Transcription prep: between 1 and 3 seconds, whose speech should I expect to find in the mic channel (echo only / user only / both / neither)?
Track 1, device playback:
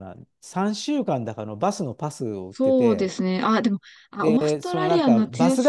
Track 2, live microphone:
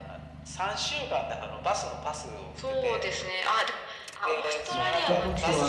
echo only